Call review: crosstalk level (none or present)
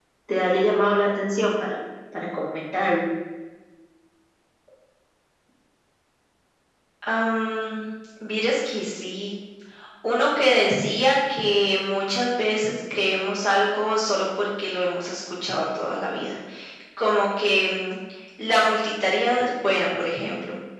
none